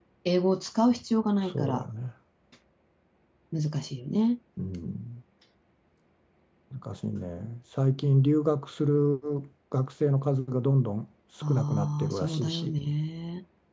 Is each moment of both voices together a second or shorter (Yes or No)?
No